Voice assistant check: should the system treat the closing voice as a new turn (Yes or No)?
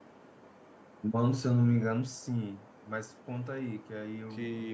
Yes